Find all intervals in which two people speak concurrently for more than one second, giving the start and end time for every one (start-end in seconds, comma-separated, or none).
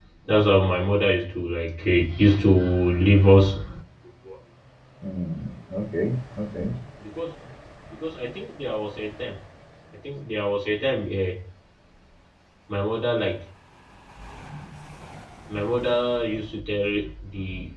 none